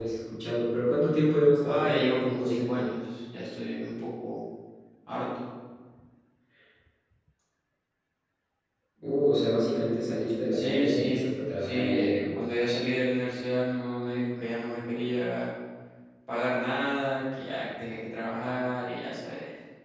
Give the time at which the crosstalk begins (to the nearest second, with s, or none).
2 s